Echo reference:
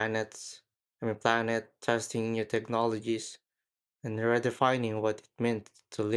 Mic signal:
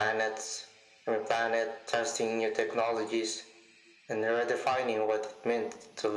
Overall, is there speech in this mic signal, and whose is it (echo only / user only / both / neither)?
echo only